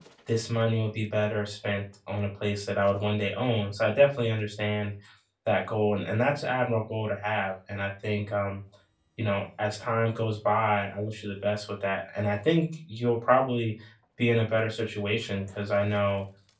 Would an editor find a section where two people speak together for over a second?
No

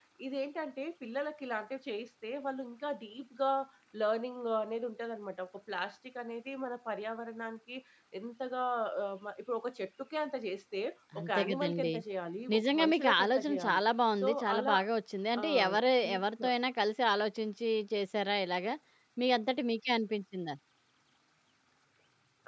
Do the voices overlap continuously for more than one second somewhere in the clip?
Yes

